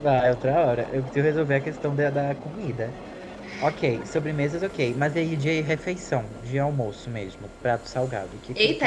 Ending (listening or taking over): taking over